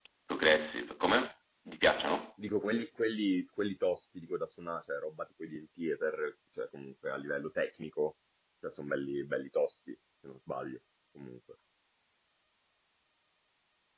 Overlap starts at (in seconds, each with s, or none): none